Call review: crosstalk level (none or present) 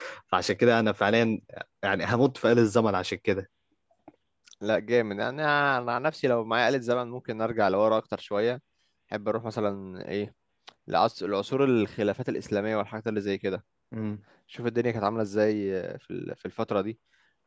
none